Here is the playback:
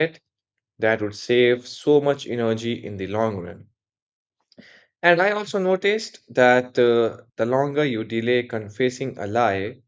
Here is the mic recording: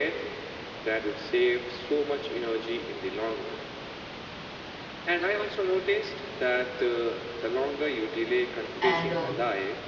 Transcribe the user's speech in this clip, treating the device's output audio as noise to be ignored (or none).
and uh,